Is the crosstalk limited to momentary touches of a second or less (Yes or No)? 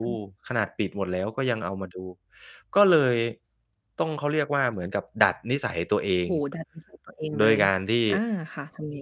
Yes